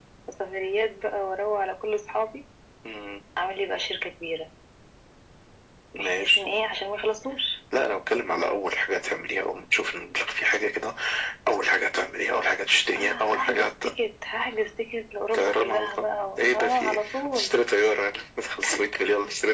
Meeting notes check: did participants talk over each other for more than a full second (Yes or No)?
Yes